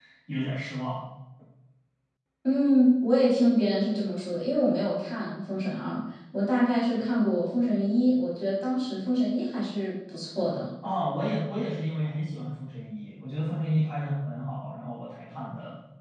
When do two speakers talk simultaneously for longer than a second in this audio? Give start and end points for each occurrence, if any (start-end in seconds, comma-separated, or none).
none